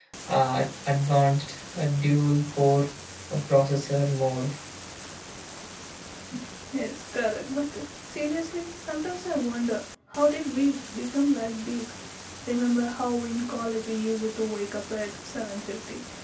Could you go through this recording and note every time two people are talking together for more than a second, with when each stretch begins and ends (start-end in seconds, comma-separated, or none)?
none